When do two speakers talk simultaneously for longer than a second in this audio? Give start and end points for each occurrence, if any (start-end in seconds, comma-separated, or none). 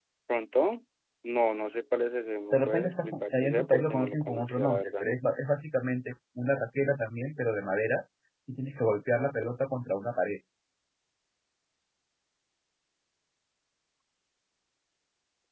2.5-5.0